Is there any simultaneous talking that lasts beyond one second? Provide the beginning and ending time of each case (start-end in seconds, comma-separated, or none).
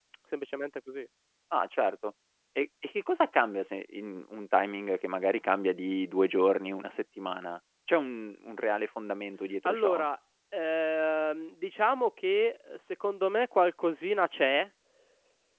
none